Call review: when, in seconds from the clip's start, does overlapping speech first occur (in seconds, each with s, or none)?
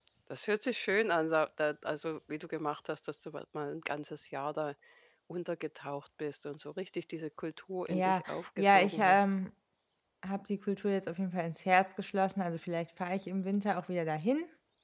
7.9 s